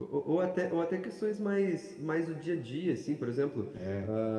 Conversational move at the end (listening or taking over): listening